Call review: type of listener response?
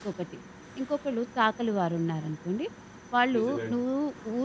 listening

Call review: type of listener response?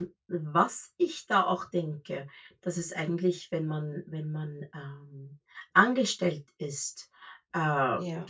listening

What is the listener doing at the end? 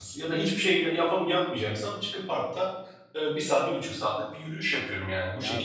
taking over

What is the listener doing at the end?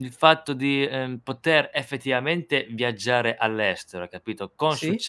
listening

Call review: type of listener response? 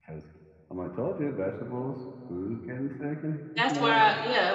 taking over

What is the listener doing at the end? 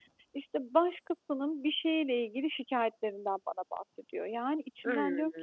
listening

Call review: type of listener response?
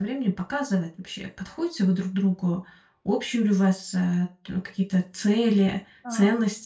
listening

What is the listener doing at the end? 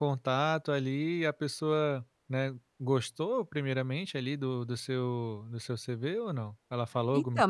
taking over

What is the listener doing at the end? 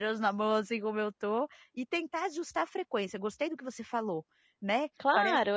taking over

